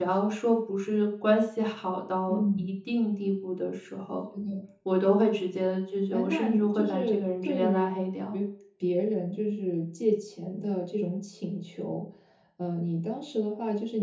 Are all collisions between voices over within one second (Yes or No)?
No